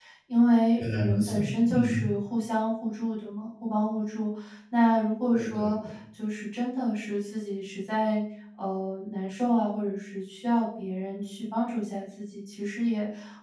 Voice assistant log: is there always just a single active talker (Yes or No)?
No